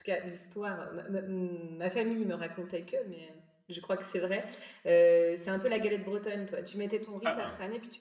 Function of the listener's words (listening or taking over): listening